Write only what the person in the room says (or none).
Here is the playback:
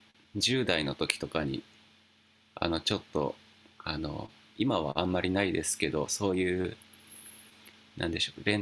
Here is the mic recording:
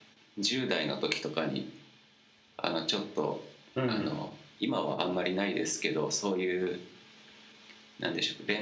うん